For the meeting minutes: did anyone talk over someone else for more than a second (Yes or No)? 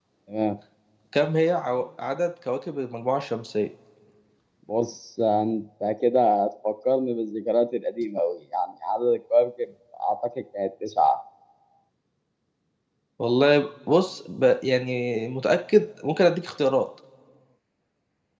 No